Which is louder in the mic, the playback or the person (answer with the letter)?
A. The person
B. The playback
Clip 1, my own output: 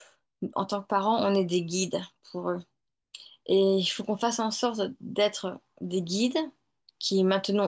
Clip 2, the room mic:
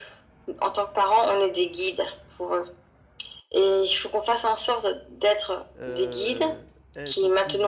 B